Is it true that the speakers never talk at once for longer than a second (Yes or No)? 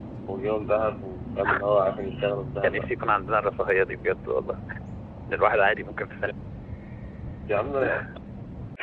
Yes